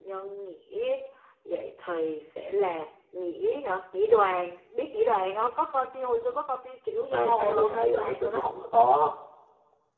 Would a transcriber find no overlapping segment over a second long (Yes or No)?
No